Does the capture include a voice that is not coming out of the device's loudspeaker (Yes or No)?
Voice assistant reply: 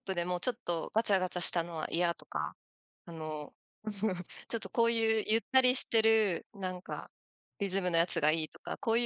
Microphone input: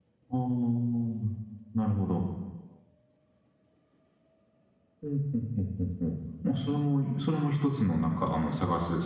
Yes